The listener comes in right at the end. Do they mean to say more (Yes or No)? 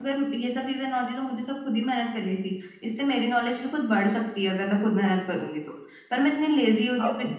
No